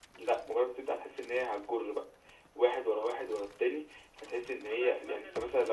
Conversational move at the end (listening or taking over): taking over